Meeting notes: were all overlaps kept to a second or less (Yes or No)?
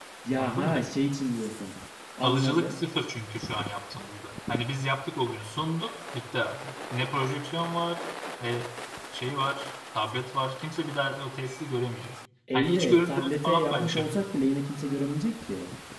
No